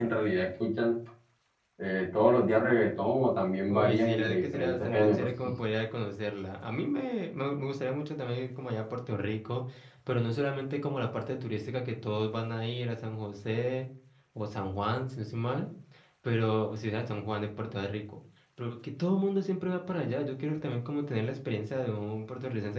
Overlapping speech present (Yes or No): Yes